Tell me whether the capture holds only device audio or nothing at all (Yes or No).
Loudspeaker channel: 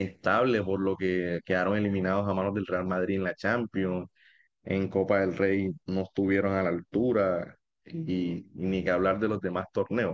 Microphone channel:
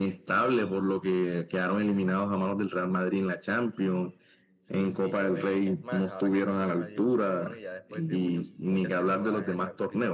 No